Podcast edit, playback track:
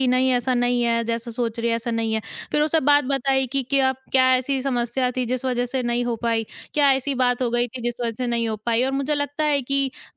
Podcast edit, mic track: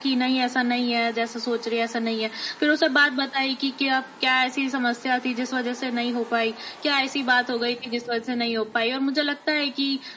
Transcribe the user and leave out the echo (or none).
none